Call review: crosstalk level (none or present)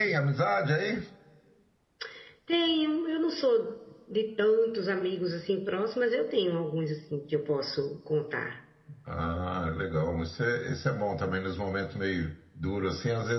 none